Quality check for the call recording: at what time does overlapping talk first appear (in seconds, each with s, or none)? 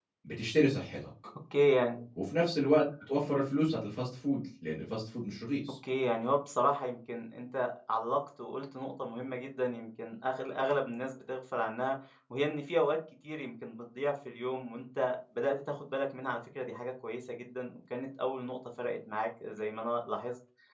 none